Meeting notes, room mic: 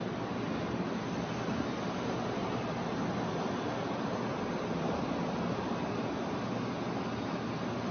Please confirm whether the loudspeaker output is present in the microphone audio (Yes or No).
No